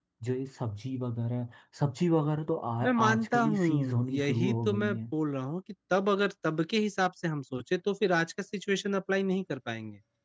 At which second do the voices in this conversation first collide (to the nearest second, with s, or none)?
3 s